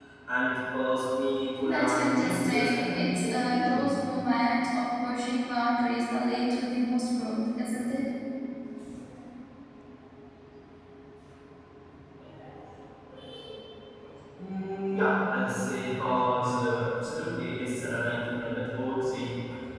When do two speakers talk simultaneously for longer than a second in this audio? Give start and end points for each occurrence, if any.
1.6-3.8

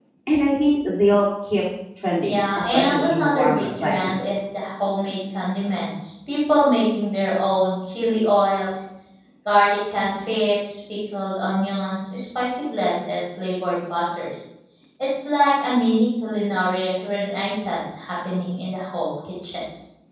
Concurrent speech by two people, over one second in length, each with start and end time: 2.2-4.3

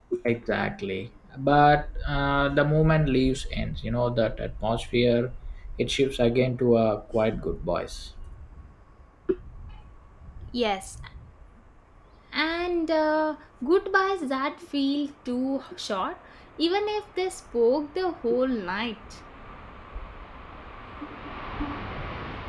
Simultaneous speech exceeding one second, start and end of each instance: none

